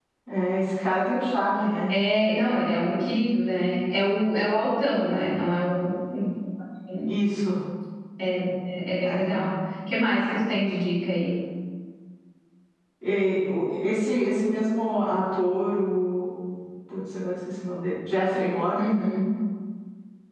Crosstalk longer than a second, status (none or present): none